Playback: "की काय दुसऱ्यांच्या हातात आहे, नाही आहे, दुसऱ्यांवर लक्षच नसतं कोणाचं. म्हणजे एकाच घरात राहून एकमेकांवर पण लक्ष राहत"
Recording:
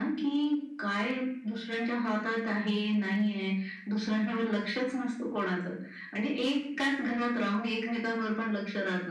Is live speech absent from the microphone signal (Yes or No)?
Yes